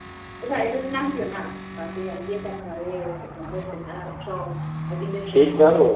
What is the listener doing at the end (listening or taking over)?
taking over